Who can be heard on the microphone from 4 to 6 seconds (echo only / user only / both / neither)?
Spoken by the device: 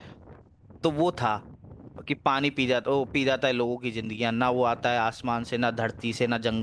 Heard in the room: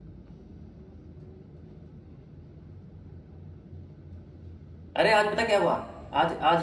user only